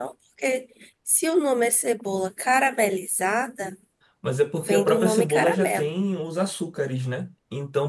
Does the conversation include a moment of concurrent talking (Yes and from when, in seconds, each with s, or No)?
Yes, from 4.6 s